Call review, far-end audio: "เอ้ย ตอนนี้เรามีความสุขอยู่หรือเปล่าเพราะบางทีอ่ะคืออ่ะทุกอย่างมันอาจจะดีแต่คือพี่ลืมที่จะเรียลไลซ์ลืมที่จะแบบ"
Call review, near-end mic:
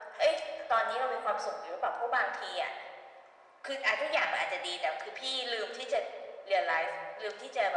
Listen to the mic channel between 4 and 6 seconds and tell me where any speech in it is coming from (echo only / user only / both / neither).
echo only